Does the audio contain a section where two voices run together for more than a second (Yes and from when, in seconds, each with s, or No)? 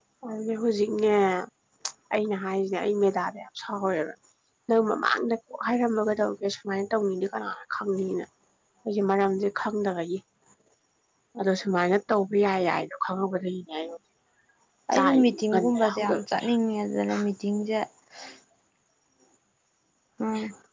Yes, from 14.9 s